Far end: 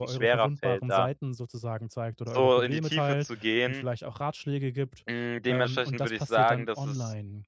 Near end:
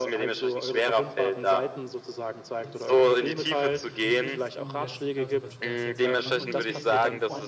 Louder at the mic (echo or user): echo